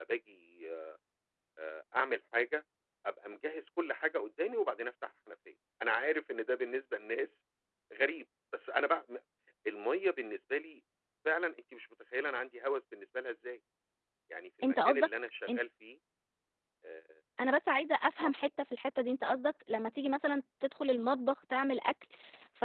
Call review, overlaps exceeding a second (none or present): none